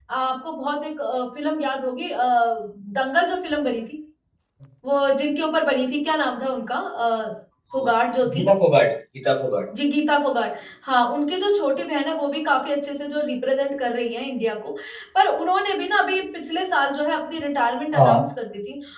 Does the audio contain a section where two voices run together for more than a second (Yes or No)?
No